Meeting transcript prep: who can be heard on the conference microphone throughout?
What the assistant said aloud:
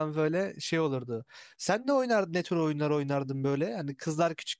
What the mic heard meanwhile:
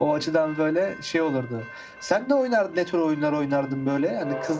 echo only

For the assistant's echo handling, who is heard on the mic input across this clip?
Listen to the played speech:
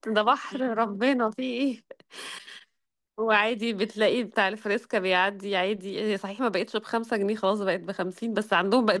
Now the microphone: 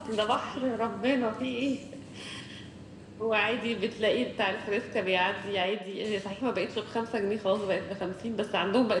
echo only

